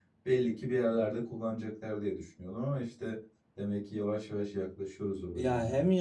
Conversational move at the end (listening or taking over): taking over